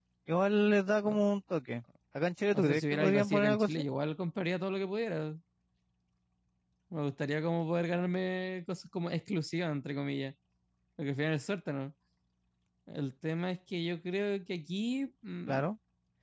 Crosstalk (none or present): present